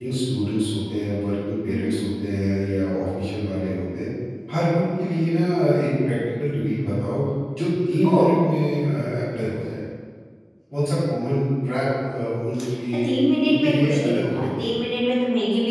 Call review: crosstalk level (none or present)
present